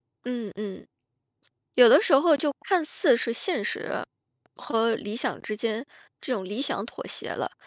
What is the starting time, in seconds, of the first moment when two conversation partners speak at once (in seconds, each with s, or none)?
none